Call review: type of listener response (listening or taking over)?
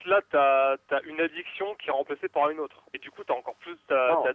taking over